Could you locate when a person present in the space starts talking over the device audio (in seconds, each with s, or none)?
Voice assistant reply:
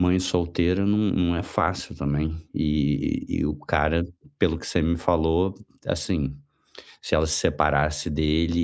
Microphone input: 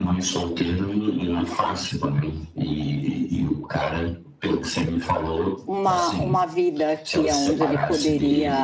5.6 s